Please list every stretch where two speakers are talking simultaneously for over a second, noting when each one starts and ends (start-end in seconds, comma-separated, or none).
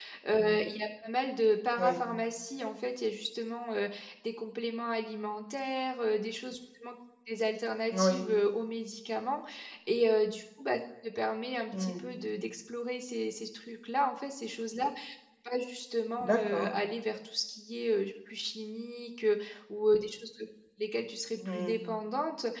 none